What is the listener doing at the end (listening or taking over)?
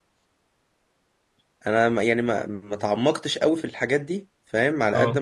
listening